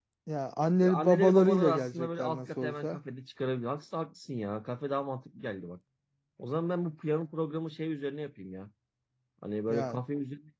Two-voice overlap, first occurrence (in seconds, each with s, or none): 0.8 s